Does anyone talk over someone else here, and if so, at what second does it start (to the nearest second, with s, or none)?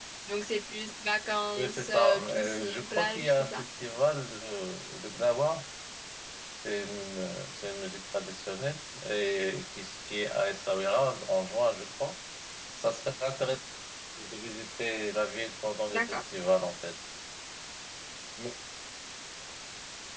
2 s